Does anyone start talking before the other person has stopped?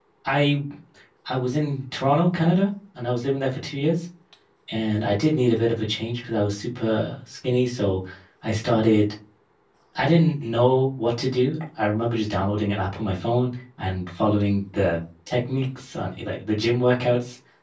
No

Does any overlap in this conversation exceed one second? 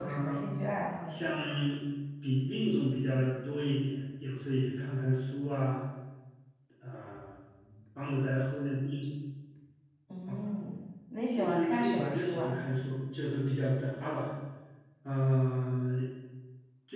Yes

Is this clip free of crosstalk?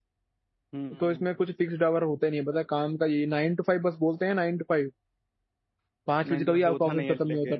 No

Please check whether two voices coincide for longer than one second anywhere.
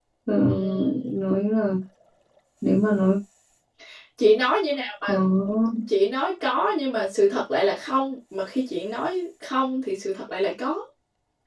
No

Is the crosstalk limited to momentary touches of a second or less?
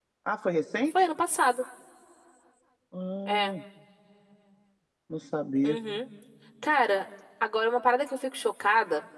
Yes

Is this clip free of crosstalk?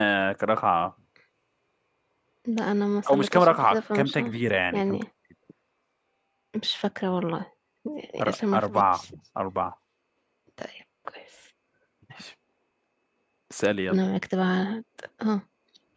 No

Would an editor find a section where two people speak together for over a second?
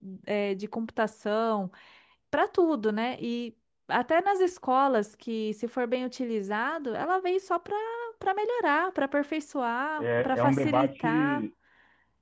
Yes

